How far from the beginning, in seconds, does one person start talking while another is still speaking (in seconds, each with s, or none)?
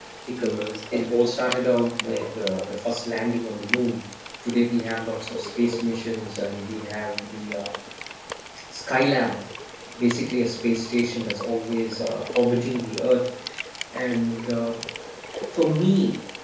none